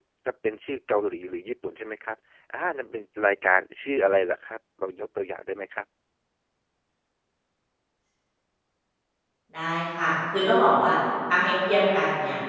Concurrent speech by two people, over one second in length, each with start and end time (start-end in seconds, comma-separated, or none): none